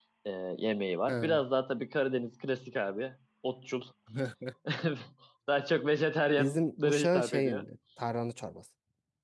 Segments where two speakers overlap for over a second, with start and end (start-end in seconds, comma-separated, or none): 6.4-7.6